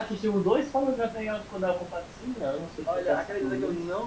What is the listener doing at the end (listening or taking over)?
taking over